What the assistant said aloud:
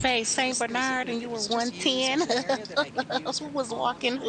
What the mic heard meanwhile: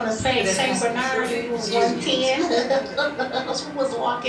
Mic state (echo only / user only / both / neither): both